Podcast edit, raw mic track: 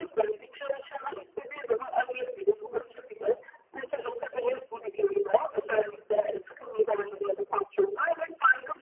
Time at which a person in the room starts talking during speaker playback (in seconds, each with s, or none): none